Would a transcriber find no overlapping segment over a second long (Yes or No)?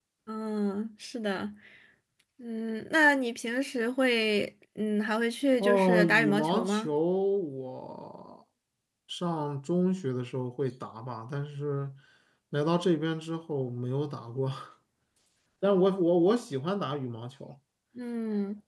No